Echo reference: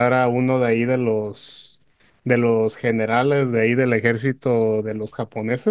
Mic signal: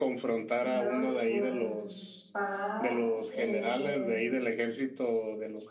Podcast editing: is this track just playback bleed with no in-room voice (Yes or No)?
No